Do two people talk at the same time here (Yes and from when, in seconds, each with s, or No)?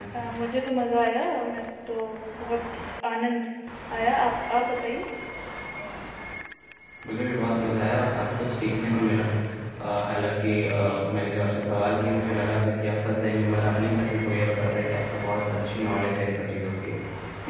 No